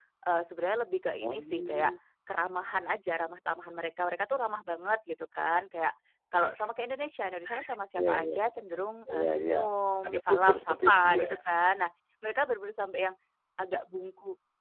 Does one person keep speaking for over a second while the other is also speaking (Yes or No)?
Yes